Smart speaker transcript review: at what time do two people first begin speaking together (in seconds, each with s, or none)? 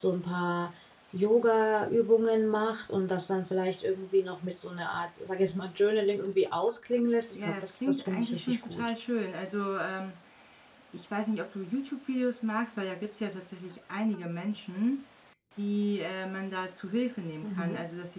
7.4 s